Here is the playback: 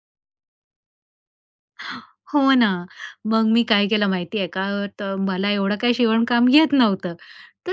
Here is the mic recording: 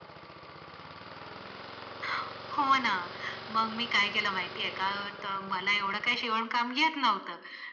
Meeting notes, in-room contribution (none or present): none